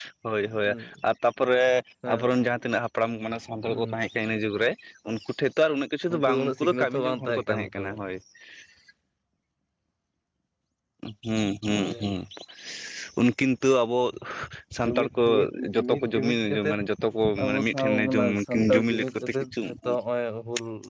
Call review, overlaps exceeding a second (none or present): present